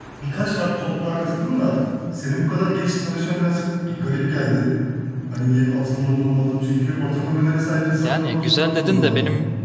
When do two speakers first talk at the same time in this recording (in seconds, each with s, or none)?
8.0 s